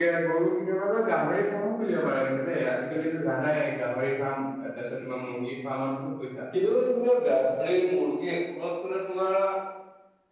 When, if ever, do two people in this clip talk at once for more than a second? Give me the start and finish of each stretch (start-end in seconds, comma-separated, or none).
none